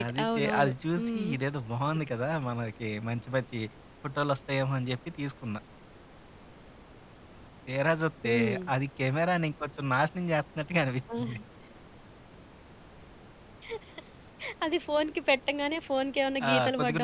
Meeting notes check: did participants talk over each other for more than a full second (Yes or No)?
Yes